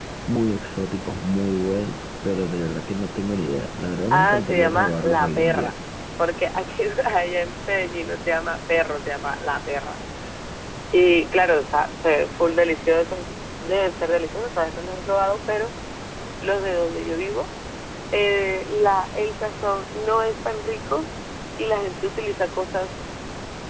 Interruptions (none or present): present